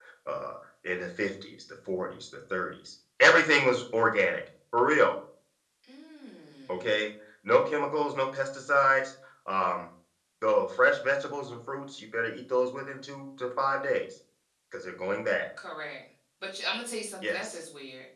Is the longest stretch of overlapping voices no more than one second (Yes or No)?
Yes